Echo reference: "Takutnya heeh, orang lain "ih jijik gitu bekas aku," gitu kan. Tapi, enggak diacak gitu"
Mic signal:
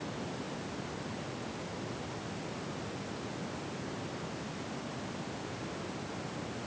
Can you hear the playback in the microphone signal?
No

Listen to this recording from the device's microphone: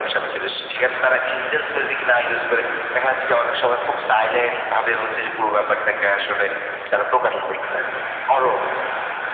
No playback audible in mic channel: No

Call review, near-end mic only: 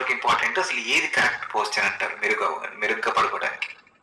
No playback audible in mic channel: No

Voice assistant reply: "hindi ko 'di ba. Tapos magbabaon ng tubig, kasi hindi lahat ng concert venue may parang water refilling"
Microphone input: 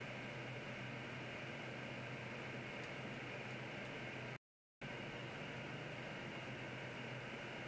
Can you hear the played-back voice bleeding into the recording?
No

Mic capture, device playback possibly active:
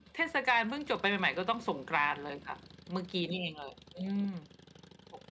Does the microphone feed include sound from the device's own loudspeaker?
Yes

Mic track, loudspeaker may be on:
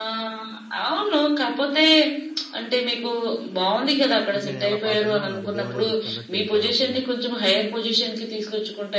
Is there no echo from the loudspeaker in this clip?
No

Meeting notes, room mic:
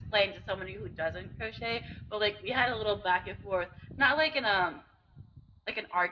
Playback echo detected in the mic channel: Yes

